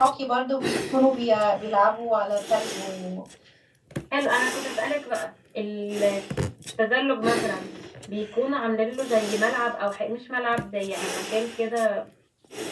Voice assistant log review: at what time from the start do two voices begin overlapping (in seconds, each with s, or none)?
none